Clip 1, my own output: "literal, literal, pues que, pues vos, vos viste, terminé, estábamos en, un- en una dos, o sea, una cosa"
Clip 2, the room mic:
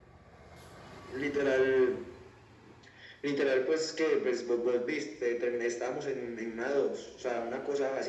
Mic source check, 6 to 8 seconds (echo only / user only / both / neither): echo only